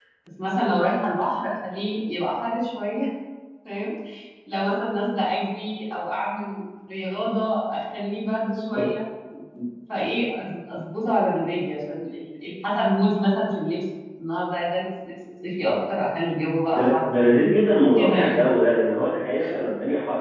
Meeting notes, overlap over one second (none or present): none